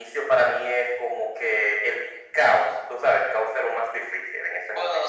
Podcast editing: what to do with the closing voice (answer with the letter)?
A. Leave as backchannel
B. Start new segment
B